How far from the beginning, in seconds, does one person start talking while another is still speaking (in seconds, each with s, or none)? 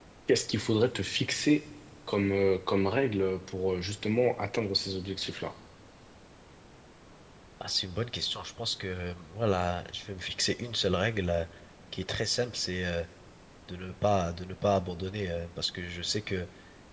none